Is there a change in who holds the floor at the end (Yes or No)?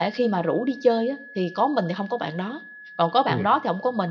No